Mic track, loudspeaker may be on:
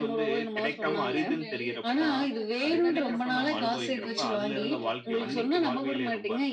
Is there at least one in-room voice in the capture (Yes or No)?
Yes